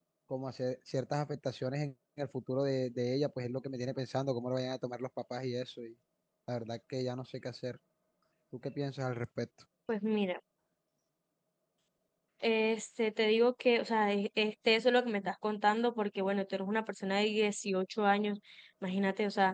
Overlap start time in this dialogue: none

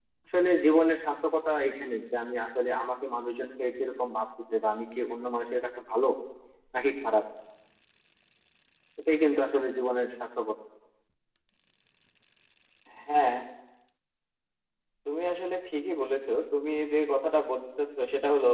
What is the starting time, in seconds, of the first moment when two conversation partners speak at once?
none

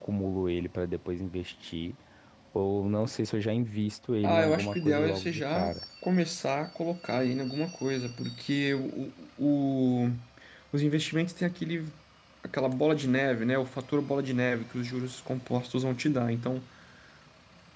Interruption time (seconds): 4.2 s

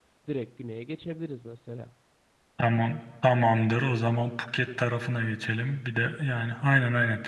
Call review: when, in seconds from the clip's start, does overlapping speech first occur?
none

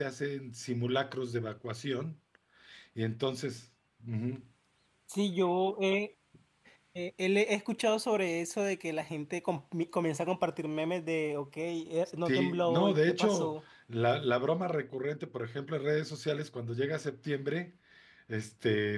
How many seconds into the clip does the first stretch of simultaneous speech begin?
12.2 s

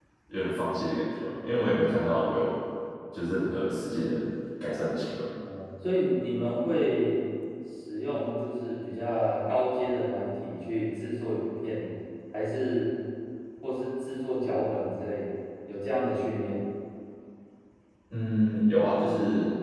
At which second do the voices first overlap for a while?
none

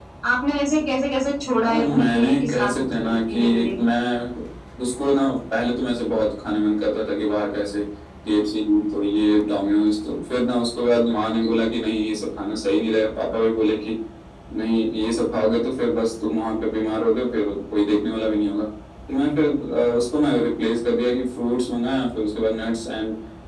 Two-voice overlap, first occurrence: 1.6 s

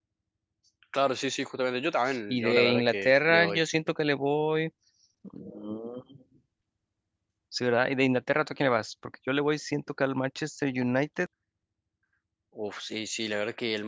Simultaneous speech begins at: 2.1 s

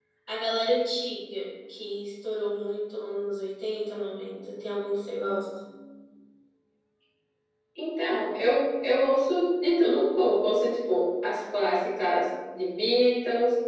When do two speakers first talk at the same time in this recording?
none

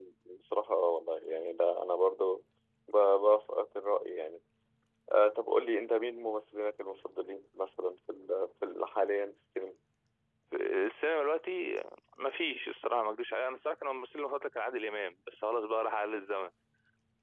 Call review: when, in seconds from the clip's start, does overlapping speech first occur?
none

